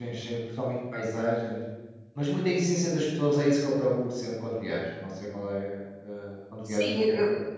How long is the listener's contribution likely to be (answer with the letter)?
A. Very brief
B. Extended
B